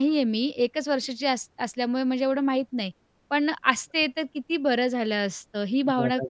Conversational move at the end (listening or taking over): taking over